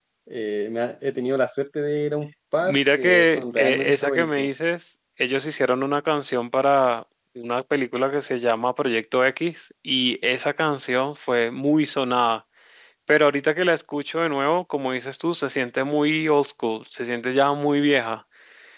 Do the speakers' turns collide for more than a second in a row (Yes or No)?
Yes